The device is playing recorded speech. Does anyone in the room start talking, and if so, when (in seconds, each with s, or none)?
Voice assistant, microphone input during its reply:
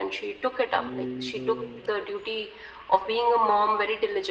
0.7 s